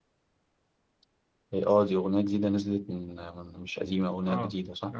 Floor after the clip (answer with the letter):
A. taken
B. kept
A